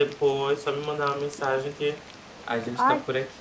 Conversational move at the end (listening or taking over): taking over